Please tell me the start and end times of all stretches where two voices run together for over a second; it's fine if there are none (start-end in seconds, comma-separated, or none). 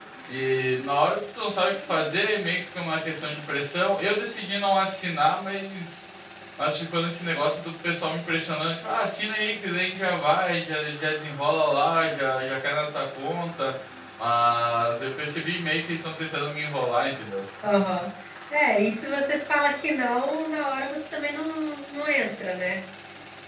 none